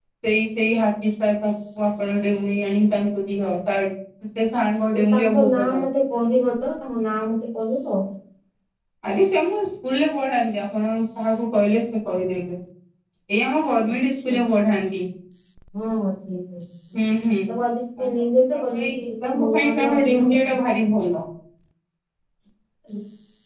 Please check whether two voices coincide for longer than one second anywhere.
Yes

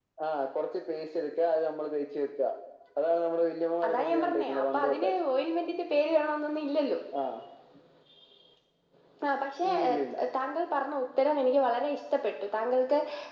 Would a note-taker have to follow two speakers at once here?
Yes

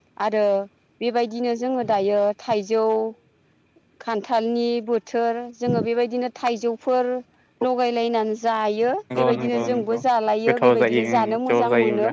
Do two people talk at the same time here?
Yes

